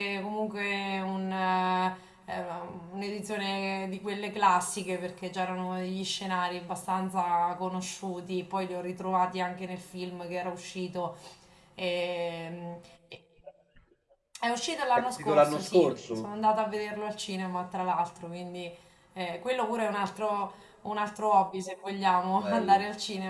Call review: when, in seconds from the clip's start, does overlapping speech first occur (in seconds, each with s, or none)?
15.0 s